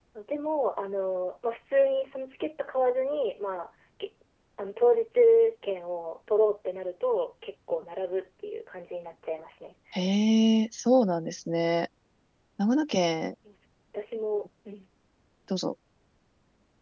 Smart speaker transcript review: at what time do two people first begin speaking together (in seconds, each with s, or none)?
none